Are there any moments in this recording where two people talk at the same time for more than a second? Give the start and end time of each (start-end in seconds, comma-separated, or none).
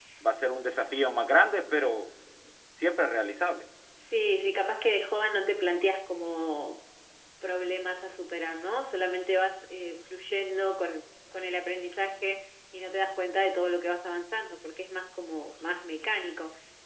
none